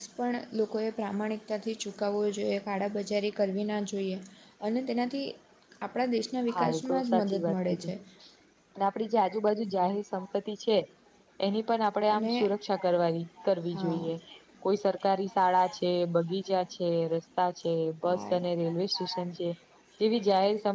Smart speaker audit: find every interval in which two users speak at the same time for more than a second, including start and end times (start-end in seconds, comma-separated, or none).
6.5-7.9